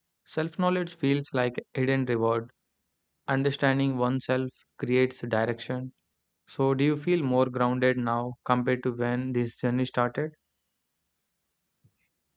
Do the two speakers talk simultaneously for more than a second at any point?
No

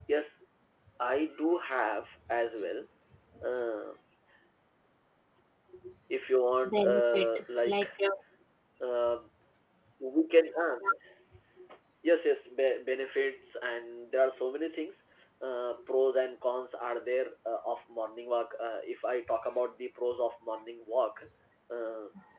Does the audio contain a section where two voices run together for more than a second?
Yes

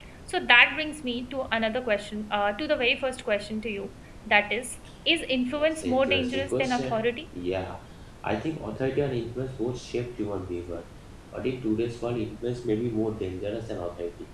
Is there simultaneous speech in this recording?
Yes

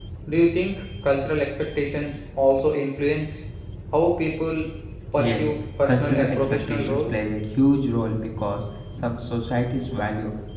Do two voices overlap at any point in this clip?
Yes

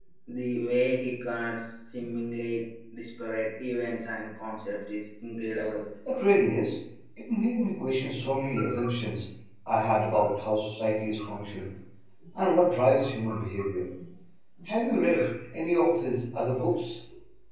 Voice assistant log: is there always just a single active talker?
Yes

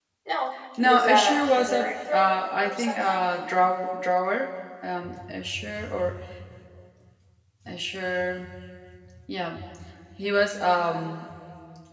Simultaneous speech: Yes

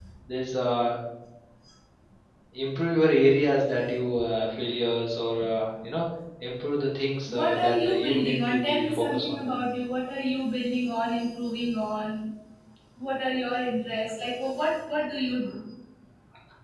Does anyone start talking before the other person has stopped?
Yes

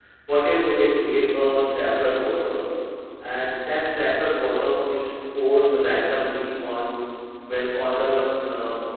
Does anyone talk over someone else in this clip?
No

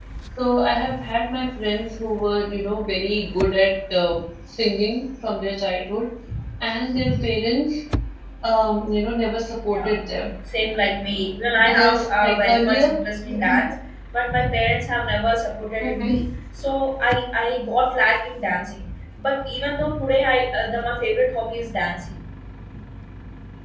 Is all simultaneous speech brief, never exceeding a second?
No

